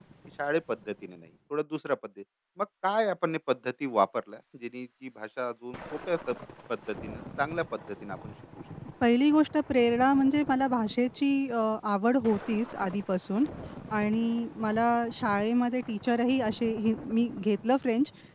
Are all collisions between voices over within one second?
Yes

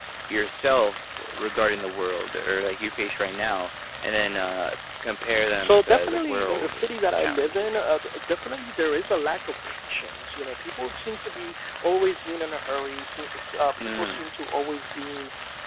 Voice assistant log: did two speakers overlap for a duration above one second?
Yes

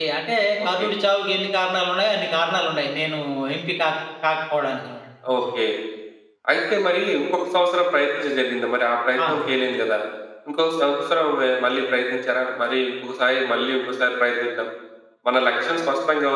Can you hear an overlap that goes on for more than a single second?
No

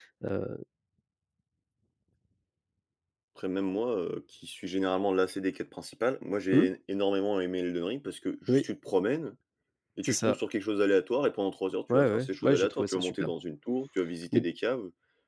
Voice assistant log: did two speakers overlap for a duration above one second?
Yes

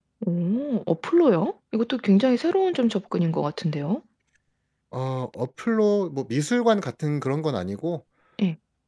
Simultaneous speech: No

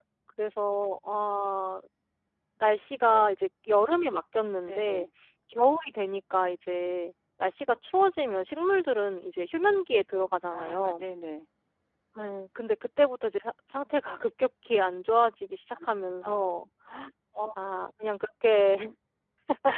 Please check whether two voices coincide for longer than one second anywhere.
No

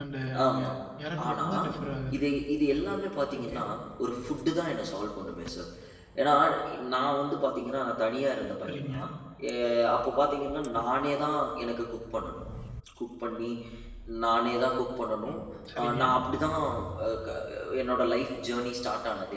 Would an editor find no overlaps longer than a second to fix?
Yes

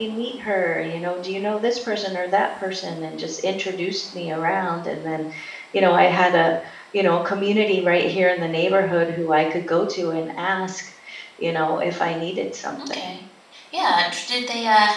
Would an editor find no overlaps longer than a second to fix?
Yes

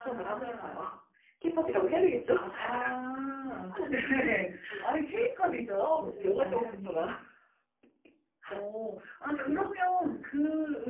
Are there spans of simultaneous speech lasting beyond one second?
Yes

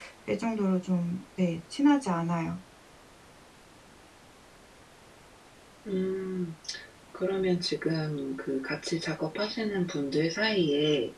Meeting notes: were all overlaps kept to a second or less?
Yes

